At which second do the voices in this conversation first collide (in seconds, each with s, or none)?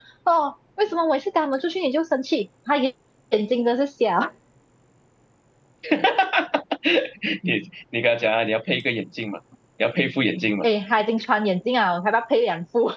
none